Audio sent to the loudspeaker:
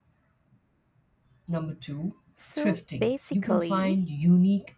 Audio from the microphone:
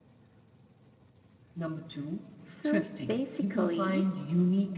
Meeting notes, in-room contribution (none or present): none